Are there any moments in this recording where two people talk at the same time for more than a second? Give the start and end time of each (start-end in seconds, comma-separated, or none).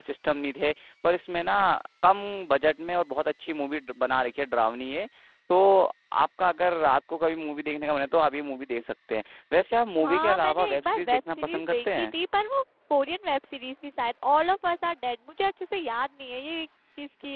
10.0-12.1